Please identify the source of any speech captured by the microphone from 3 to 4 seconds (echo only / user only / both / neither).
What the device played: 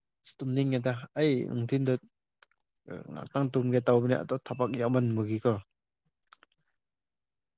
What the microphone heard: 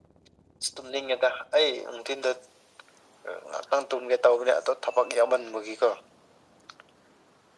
echo only